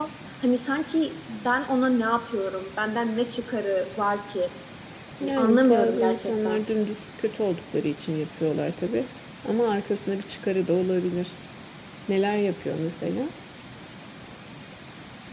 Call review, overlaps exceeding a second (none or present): present